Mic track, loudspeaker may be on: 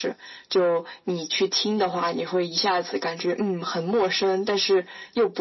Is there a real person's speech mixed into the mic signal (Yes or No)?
No